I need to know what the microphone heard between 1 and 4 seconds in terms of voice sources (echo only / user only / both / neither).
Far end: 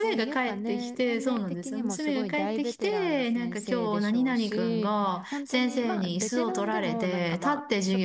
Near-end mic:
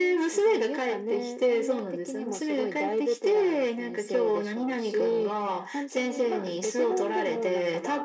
echo only